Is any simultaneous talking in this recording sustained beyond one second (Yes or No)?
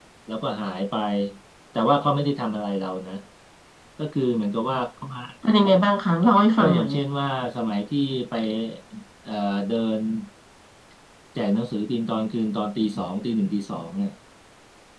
No